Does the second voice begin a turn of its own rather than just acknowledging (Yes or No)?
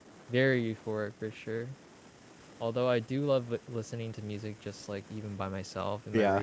No